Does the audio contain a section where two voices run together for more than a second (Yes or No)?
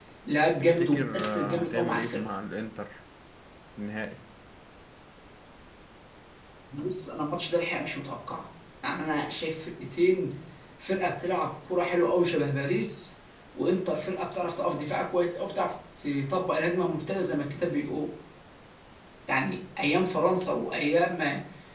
Yes